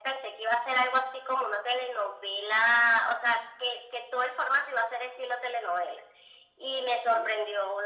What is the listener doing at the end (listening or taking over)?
listening